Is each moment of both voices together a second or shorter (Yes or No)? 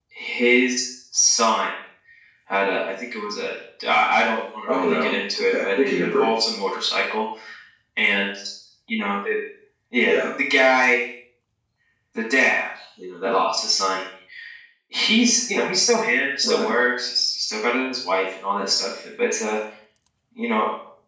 No